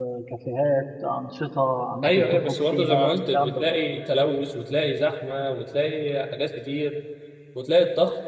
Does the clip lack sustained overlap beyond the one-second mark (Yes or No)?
No